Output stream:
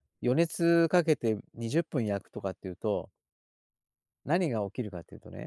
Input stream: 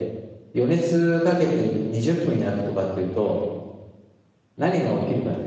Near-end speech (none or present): none